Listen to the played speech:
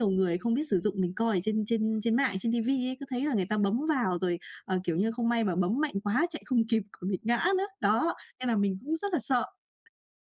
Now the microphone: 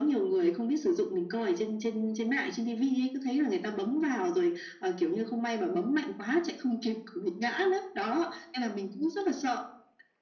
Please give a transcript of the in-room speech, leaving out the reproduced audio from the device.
none

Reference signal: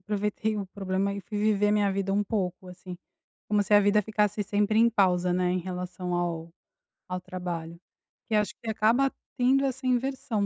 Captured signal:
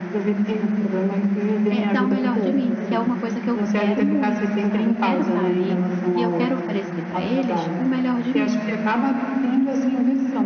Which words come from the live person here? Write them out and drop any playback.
eh, dar o melhor de mim, que é uma coisa que eu quero muito, sabe, eu quero tá ali e eu quero oferecer pra eles o melhor de mim,

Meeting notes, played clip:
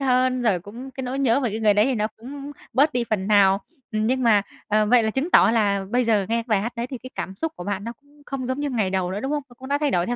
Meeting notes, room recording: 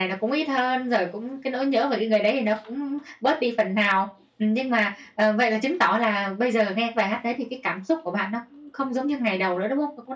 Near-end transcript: none

